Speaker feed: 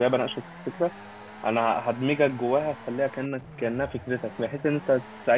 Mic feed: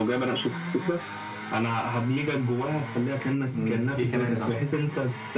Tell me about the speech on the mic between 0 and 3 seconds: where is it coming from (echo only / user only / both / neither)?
echo only